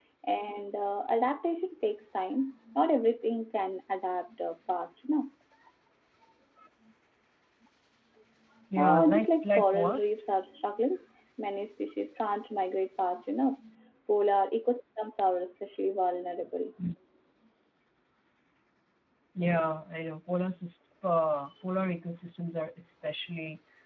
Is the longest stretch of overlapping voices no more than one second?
No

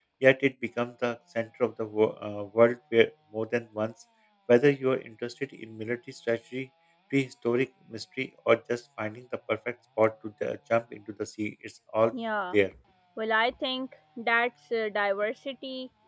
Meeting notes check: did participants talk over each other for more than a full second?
No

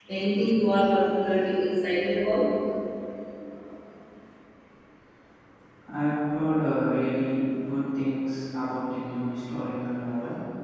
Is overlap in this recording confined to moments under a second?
Yes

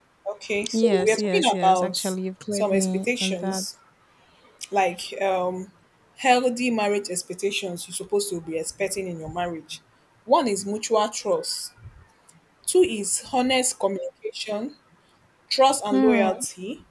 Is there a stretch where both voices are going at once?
Yes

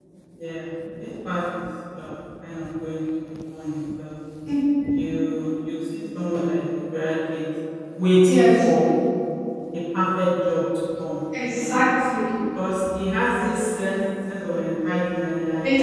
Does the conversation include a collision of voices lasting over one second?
No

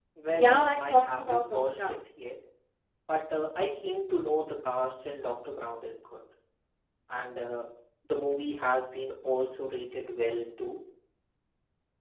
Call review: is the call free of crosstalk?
No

